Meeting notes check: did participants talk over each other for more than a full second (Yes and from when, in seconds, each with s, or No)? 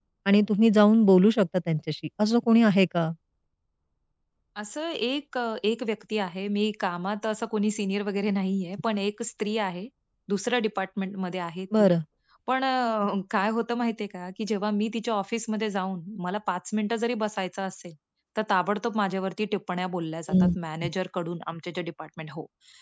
No